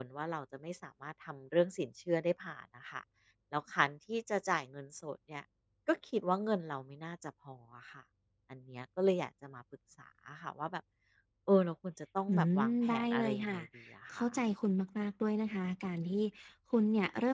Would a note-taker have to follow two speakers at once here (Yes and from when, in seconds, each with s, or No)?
Yes, from 12.3 s